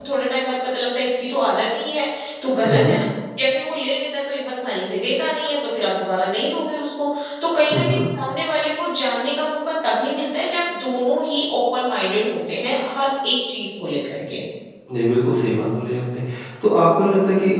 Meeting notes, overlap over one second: none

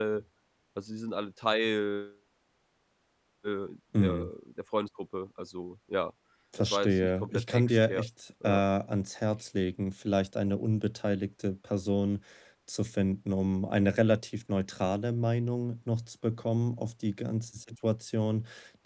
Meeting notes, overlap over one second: present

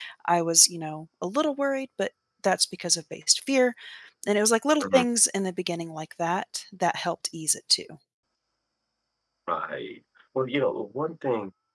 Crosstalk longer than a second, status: none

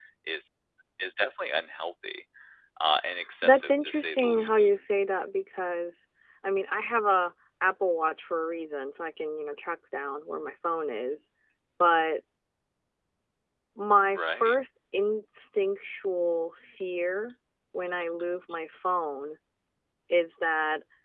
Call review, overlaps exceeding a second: present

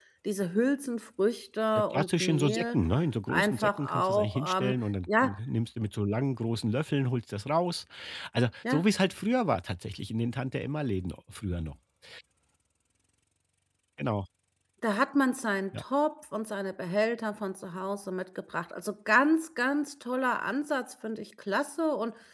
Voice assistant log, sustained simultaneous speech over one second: present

